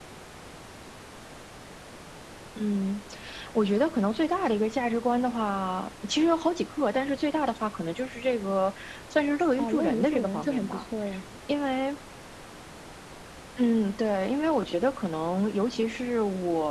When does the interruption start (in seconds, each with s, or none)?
9.6 s